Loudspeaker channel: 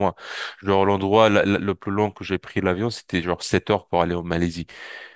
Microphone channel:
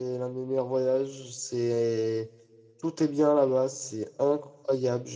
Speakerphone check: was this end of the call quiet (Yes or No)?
No